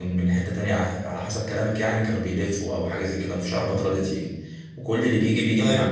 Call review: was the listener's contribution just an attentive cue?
Yes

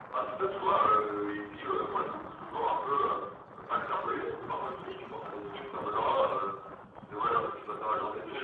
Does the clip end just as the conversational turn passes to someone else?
Yes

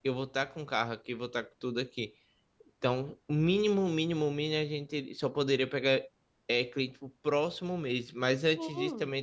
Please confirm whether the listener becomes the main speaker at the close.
No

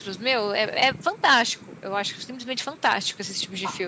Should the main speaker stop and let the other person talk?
Yes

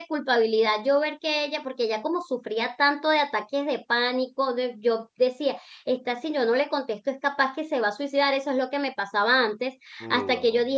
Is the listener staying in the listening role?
Yes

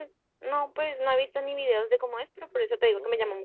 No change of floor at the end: Yes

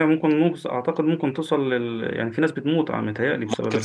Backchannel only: No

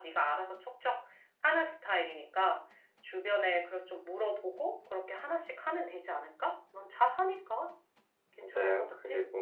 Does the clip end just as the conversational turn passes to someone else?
Yes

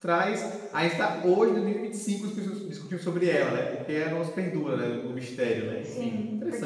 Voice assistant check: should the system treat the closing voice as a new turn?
Yes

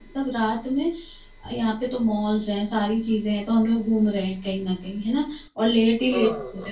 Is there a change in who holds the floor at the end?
No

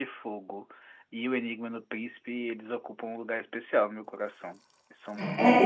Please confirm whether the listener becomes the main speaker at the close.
Yes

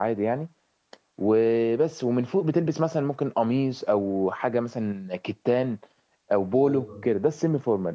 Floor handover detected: No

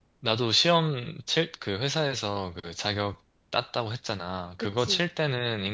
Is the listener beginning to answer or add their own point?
No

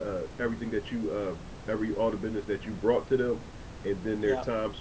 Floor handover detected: No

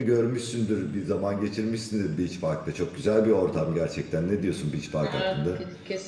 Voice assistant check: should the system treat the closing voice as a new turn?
Yes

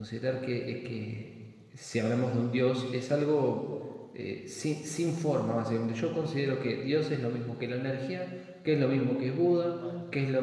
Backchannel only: Yes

